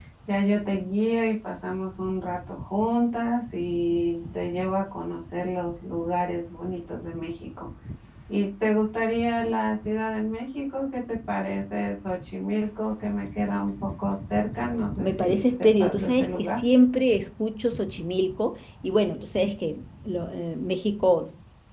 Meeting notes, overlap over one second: present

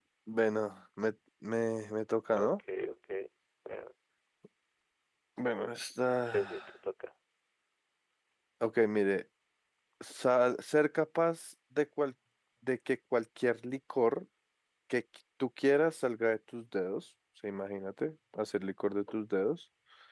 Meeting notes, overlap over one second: none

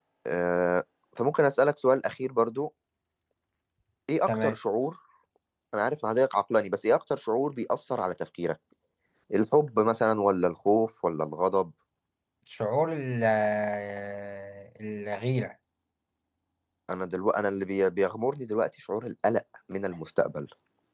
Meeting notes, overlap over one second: none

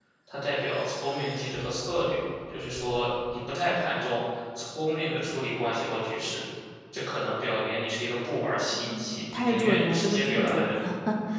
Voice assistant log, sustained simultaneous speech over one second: present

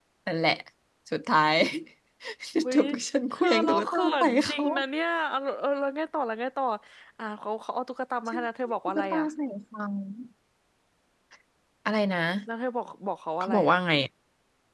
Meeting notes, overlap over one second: present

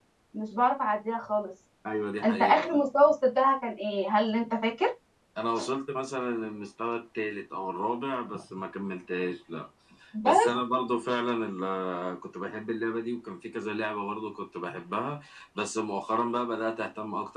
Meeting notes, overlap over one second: none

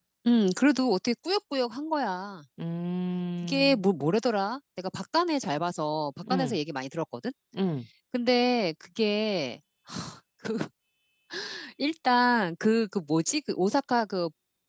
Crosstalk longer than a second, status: none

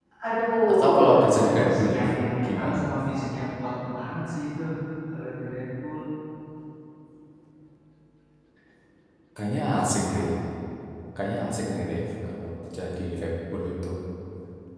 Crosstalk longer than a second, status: present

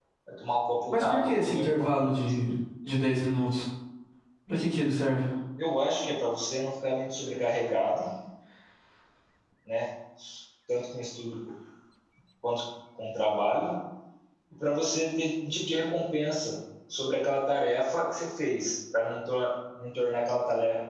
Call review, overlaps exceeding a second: present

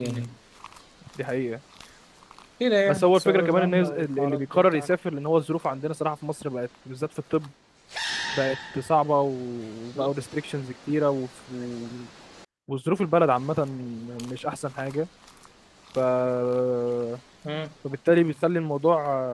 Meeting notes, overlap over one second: present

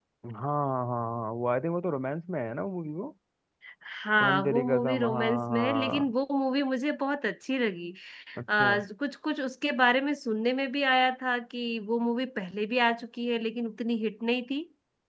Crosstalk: present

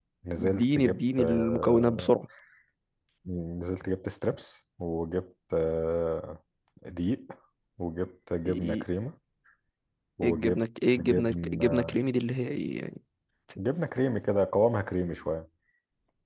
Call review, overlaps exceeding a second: present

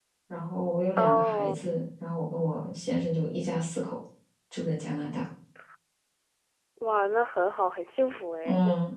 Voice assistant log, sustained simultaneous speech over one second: none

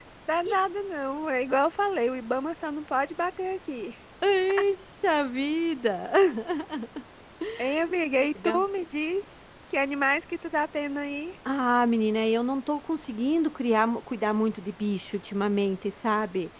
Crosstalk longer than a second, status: none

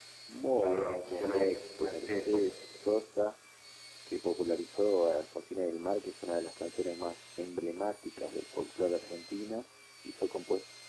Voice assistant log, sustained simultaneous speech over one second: present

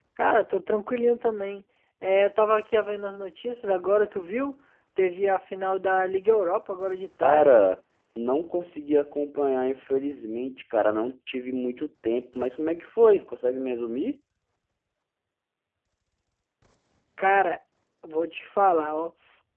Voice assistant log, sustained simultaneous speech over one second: none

